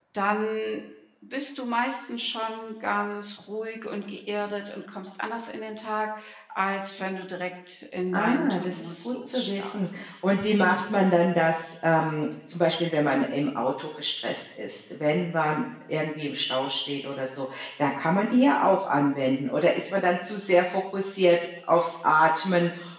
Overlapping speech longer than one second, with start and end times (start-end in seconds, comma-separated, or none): 8.1-10.4